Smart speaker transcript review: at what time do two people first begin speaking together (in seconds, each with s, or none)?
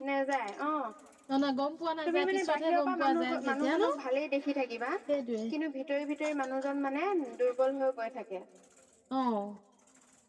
2.1 s